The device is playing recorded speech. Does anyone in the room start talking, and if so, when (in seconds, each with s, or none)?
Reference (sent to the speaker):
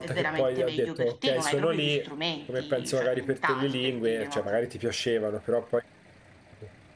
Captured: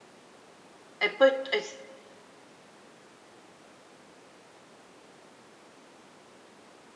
1.0 s